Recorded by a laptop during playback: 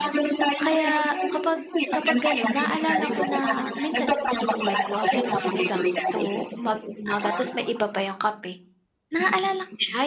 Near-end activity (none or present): present